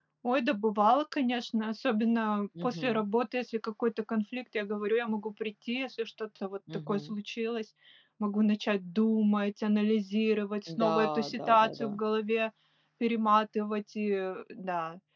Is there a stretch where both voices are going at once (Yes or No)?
Yes